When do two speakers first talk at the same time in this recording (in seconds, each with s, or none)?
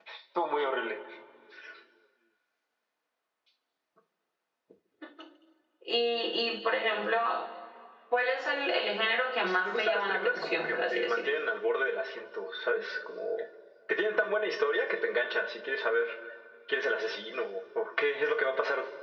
9.4 s